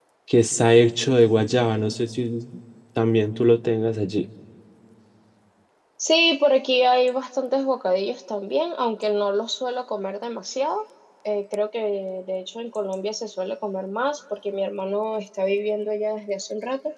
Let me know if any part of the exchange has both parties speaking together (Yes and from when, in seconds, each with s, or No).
No